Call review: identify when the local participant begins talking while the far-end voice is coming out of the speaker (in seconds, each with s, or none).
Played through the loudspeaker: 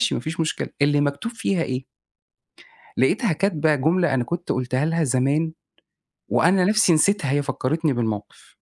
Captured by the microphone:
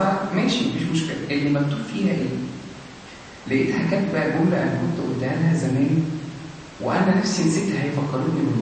none